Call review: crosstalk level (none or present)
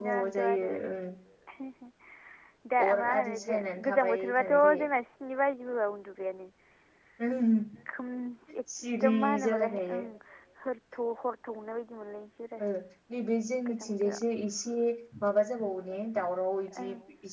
present